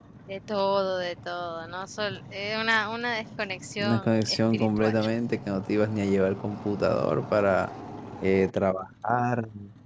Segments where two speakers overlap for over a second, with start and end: 3.8-5.0

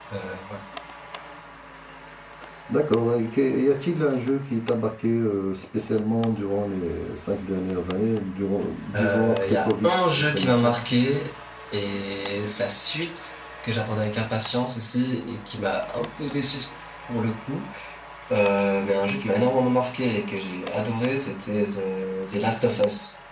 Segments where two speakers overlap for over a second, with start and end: 8.9-10.8

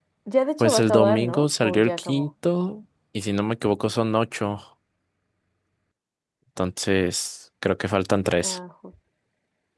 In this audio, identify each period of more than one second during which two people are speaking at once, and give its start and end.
0.6-2.3

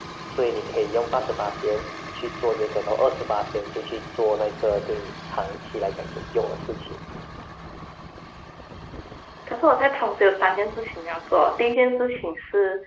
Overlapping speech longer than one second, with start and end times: none

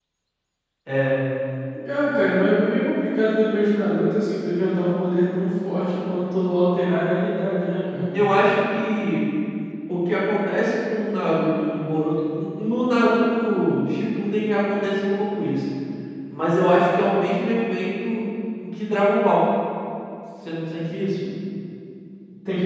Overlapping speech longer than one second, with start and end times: none

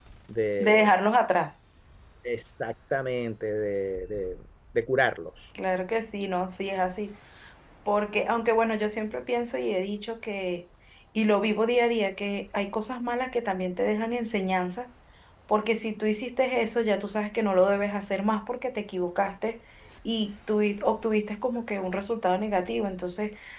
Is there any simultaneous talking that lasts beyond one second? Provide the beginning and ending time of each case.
none

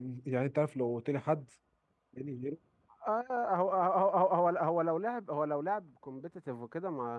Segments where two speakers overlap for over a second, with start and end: none

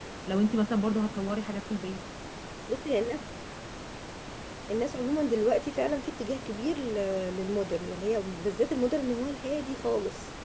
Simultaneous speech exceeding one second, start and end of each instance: none

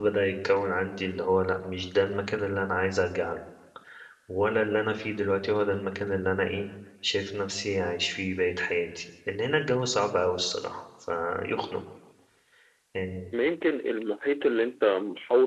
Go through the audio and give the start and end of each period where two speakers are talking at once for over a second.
none

